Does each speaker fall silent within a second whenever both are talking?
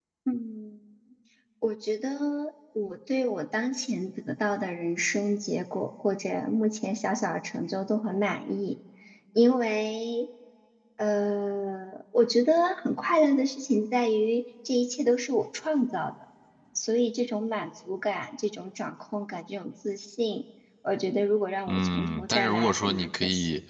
No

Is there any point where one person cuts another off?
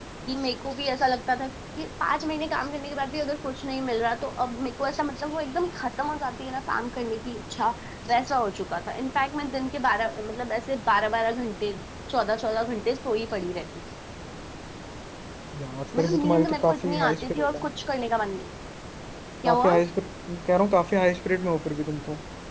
Yes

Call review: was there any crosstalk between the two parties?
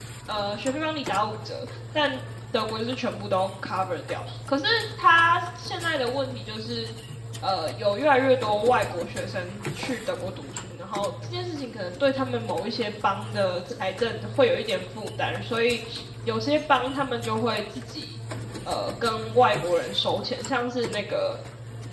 No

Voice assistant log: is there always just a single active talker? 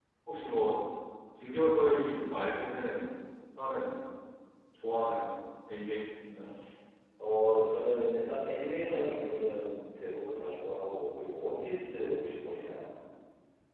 Yes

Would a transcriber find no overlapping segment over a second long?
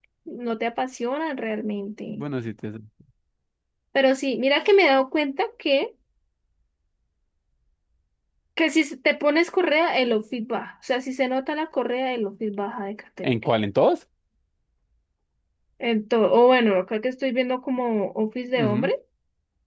Yes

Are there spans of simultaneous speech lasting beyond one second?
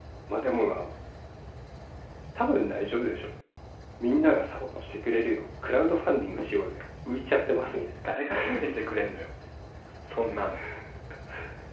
No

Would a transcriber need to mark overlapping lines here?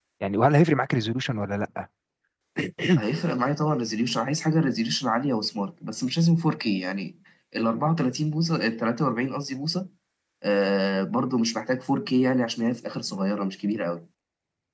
No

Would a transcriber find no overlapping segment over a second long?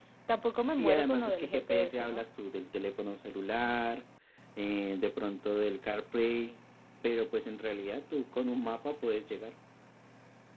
No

